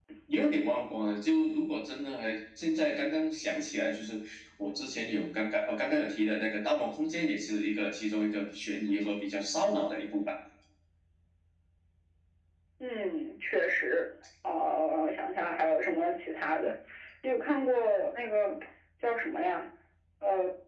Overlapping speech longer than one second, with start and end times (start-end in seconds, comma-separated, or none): none